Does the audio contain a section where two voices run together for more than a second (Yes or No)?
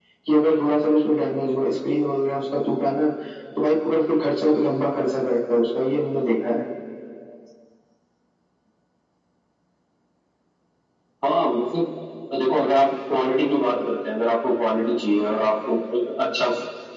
No